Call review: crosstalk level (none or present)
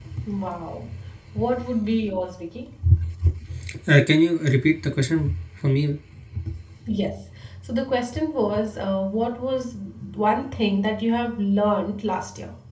none